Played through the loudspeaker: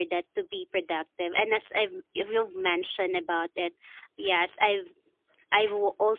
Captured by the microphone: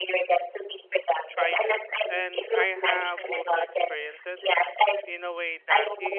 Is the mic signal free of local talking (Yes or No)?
No